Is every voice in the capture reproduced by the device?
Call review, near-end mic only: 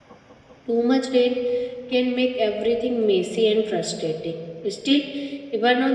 No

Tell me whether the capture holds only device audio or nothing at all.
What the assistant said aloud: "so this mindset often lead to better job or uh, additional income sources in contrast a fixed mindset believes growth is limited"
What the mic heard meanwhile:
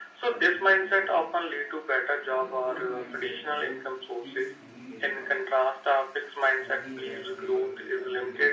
No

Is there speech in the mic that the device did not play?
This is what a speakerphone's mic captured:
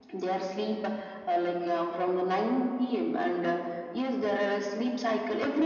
No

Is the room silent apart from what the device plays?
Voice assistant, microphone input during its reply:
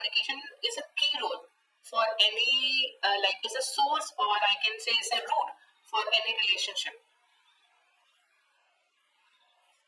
Yes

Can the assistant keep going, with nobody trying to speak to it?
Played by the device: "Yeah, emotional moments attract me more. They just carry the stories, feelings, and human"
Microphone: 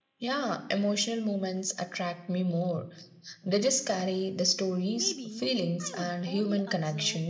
No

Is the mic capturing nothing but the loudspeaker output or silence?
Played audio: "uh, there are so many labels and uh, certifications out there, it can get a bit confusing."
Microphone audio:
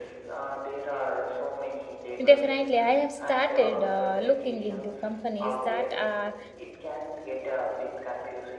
No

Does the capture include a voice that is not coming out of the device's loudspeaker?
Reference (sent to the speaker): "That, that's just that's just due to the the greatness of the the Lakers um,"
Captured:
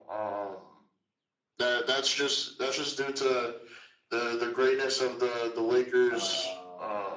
Yes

